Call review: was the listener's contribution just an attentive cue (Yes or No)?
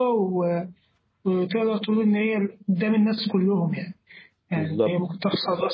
Yes